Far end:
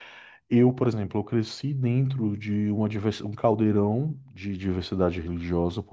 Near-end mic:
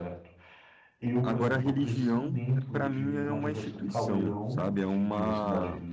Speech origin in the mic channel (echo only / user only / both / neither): both